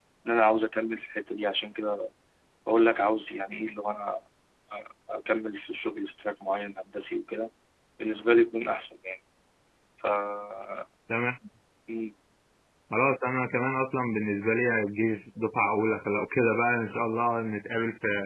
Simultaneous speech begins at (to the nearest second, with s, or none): none